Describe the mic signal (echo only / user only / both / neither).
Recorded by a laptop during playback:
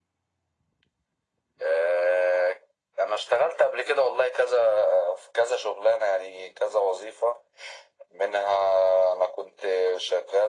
echo only